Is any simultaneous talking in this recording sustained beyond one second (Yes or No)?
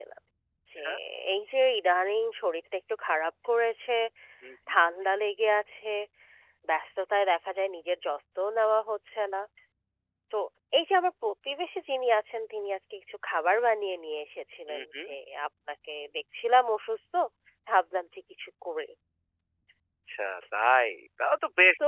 No